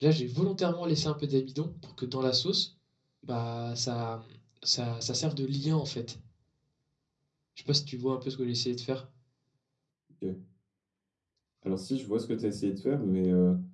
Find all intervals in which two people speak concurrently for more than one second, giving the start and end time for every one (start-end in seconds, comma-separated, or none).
none